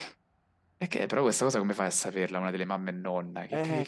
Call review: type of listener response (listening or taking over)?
taking over